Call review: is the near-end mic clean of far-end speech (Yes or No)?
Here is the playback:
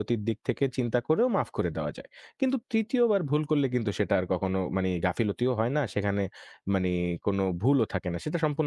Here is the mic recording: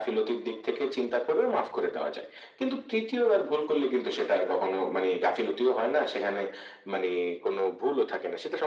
No